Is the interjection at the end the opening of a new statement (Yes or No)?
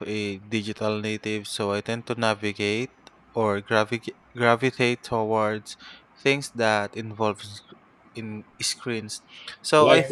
No